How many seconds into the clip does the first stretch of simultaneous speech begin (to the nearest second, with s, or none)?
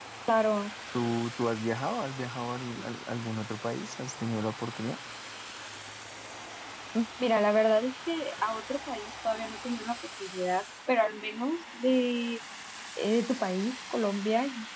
none